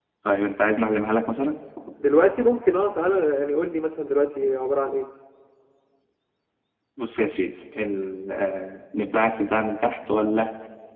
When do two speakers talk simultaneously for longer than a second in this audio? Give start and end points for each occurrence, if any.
none

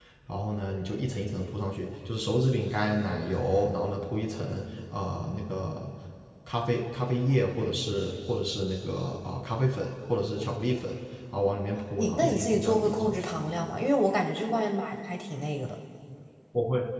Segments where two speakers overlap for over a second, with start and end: 12.0-13.2

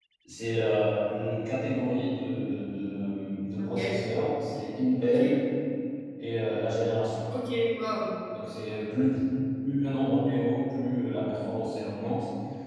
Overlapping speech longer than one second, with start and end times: none

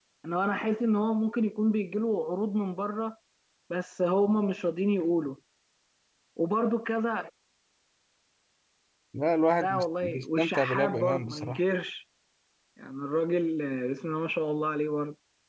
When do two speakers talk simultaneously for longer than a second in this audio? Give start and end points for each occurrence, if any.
9.6-11.6

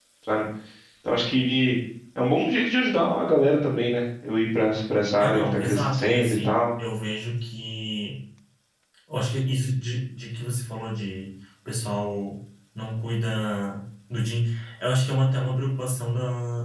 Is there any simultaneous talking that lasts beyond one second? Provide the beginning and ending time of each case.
5.2-6.6

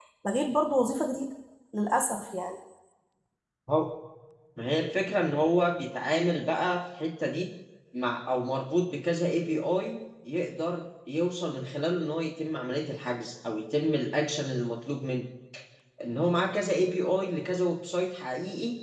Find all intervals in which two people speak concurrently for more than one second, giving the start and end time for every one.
none

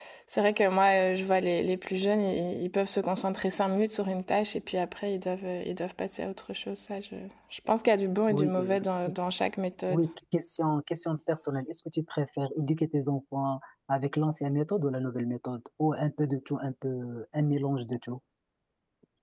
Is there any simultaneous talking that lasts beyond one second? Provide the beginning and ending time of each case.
none

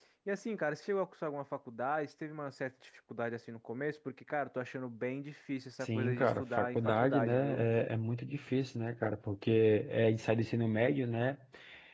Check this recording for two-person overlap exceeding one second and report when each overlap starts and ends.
5.8-7.6

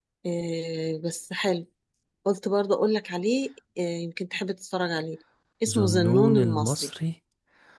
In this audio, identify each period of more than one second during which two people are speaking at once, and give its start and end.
5.7-6.9

